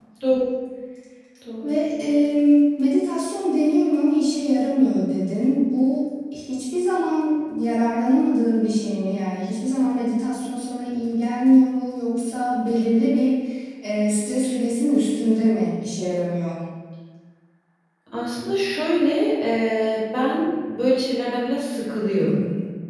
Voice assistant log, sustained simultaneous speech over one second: none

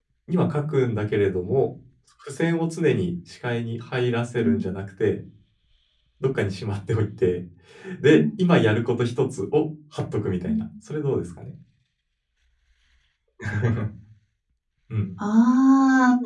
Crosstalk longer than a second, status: none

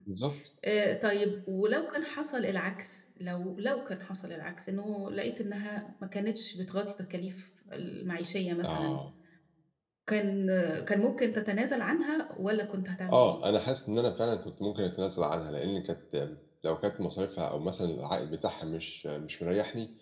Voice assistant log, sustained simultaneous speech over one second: none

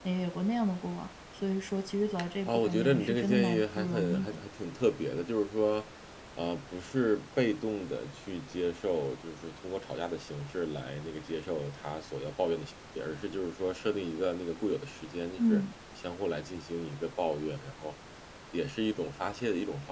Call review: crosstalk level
present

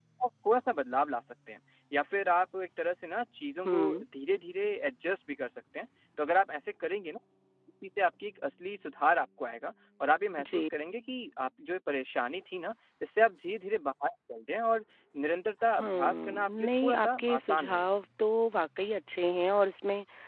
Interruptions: present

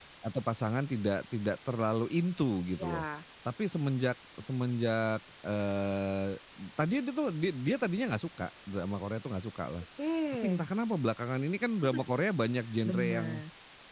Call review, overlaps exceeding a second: none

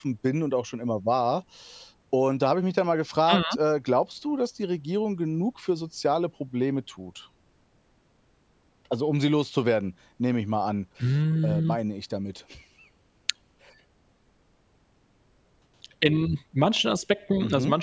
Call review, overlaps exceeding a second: none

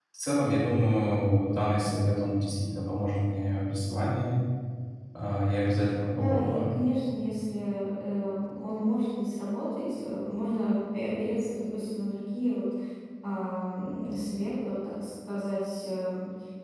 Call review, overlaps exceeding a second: none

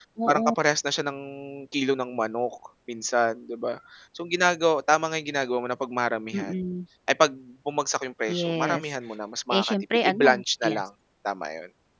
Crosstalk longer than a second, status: present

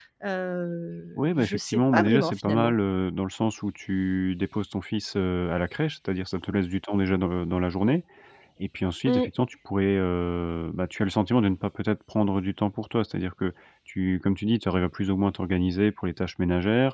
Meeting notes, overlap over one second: present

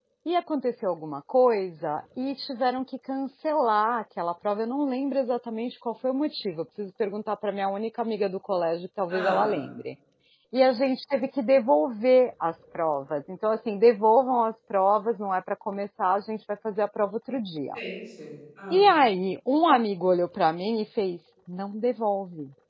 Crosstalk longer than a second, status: none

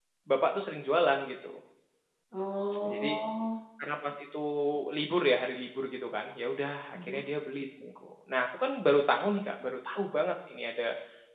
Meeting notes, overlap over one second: none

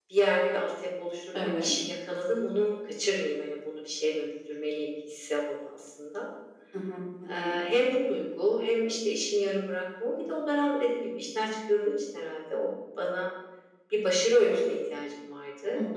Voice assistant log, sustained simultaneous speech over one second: none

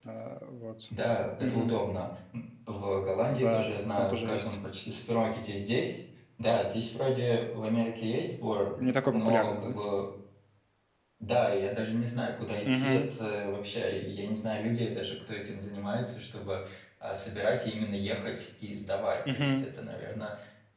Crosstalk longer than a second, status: present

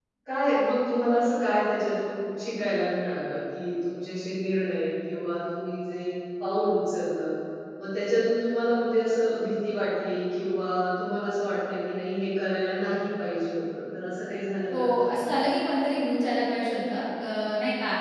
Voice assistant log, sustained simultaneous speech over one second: none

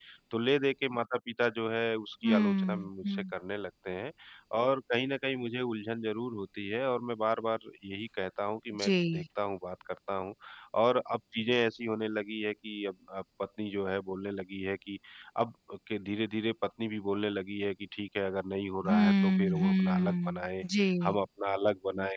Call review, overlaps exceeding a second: present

